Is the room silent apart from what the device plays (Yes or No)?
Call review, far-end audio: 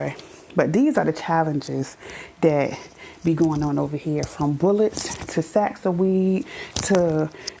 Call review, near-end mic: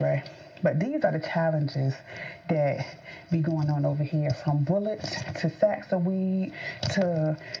Yes